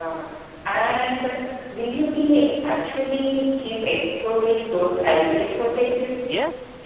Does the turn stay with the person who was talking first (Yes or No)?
No